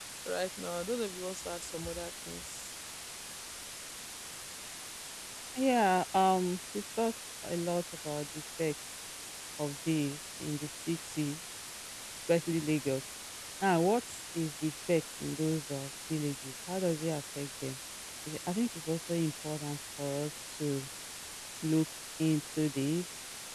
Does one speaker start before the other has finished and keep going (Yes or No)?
No